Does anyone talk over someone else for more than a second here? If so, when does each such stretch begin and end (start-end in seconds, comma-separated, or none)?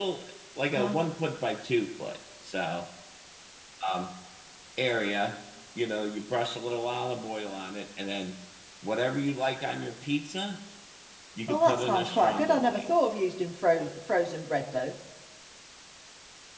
11.5-12.8